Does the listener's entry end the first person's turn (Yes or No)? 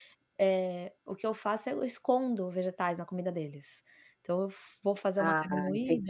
No